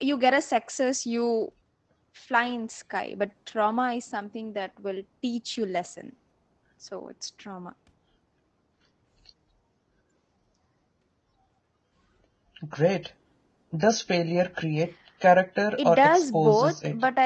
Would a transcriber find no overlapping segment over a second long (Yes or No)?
No